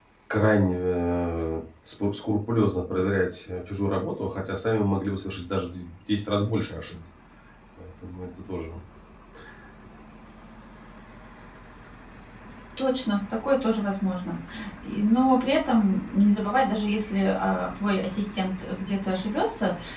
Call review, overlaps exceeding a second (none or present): none